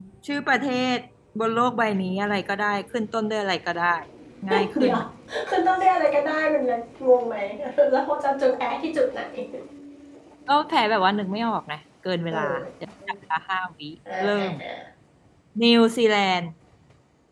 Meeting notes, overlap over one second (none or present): none